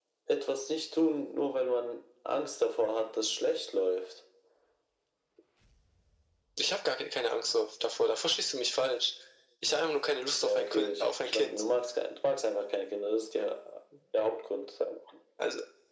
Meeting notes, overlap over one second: present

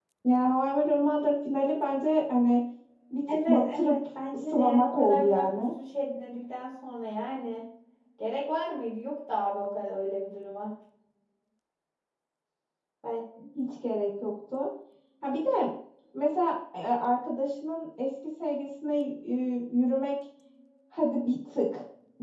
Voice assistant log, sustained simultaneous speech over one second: present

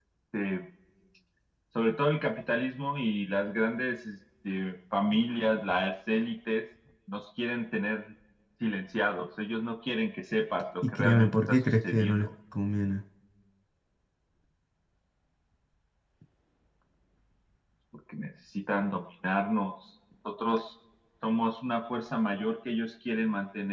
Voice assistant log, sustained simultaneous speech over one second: present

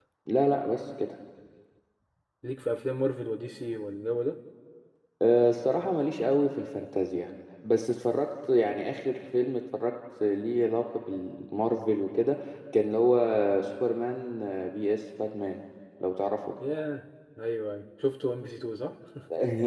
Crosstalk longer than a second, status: none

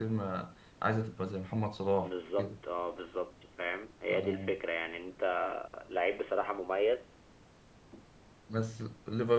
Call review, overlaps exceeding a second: none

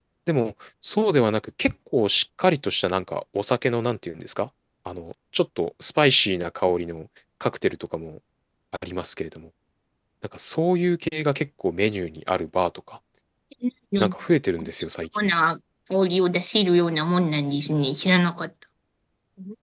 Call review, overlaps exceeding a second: none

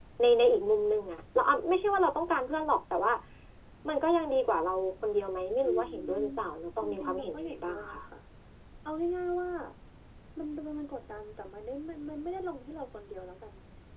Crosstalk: present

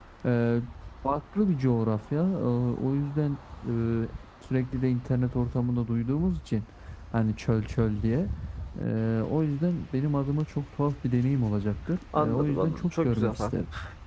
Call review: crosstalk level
present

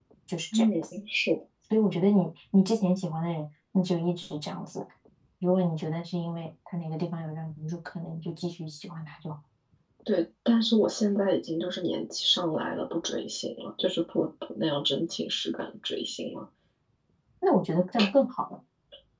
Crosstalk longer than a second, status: none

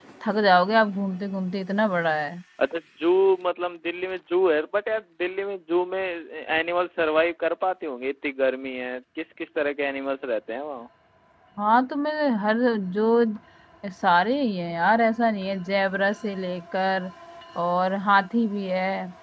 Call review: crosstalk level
none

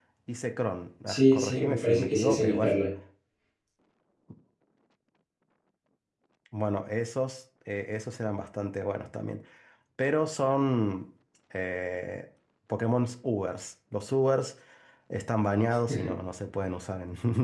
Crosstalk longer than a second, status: present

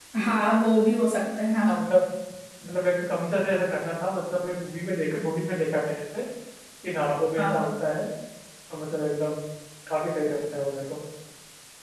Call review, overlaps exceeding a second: none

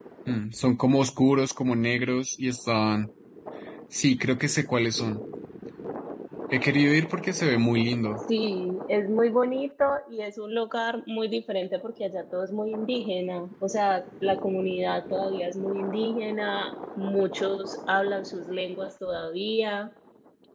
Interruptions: none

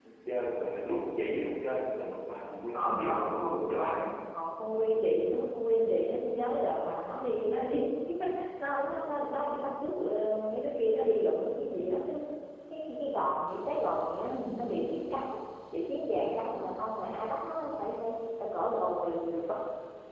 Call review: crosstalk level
present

